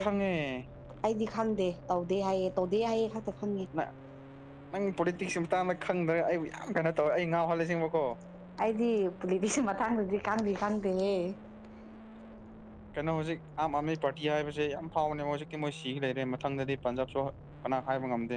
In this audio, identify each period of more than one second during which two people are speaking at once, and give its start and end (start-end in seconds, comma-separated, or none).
none